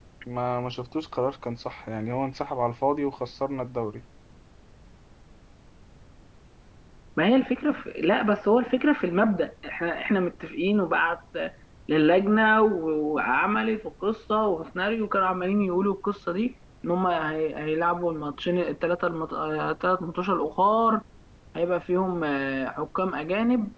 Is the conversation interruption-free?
Yes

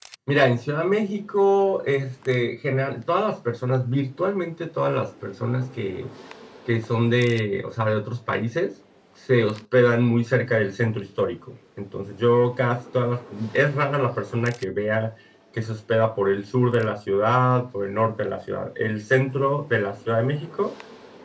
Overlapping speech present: No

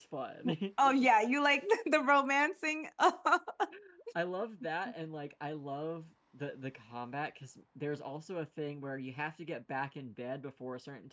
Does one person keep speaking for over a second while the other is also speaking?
No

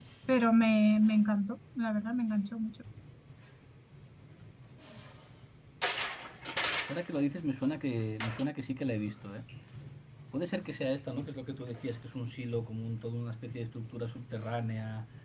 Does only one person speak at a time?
Yes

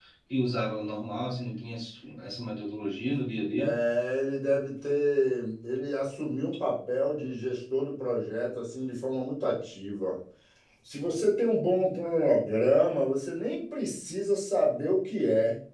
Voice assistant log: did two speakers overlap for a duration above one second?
No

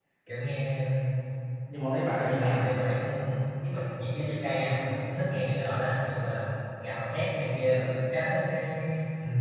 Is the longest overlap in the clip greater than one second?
No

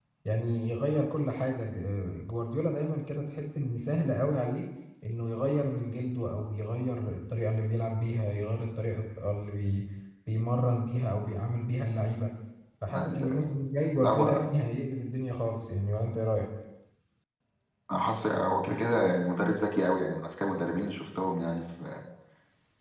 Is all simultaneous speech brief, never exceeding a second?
Yes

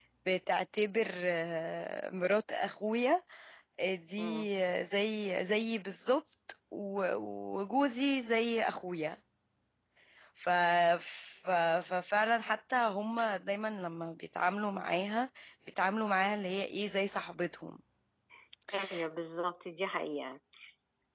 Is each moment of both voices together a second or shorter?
Yes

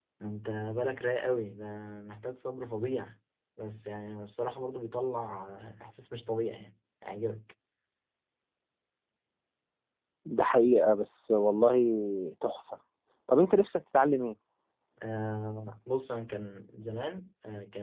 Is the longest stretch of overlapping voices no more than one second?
Yes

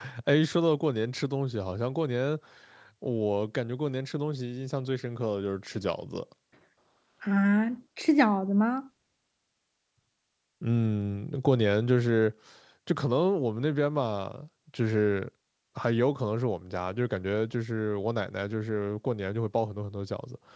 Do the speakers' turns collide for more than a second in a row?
No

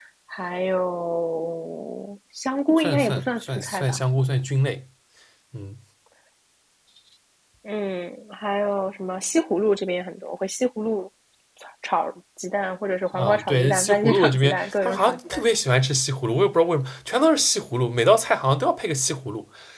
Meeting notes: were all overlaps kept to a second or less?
No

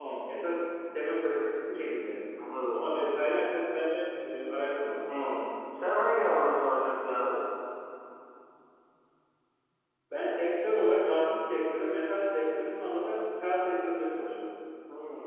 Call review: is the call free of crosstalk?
Yes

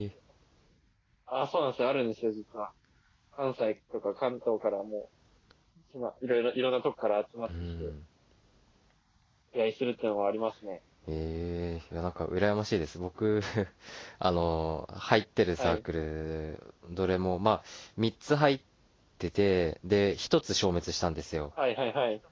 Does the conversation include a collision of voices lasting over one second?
No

